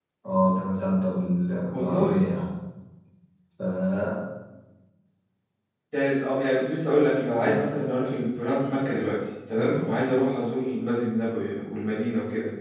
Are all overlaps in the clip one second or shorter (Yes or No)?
Yes